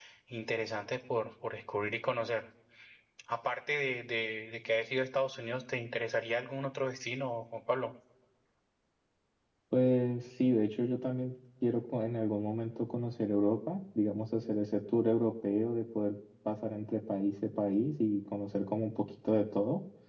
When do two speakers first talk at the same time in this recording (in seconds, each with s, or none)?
none